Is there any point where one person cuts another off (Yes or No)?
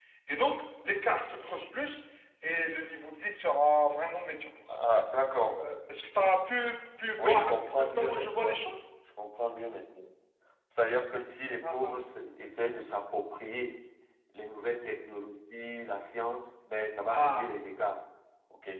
Yes